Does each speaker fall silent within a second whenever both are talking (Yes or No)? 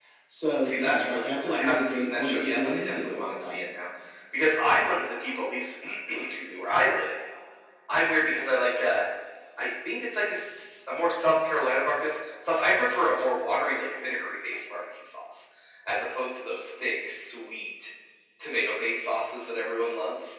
No